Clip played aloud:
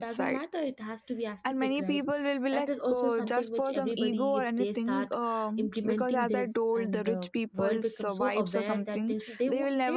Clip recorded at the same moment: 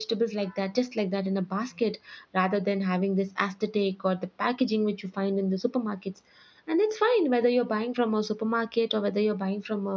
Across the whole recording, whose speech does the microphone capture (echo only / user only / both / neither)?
user only